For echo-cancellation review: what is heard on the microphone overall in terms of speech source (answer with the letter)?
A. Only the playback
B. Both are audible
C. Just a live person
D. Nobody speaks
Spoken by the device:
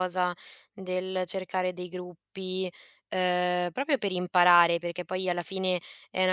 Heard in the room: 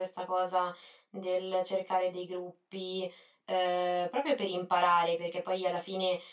A